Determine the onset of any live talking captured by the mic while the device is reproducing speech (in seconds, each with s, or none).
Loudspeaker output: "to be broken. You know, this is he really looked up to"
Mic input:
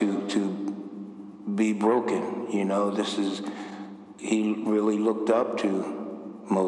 none